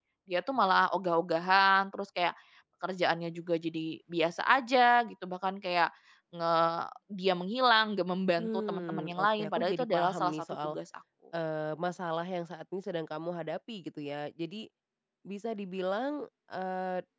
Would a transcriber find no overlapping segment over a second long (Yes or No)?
No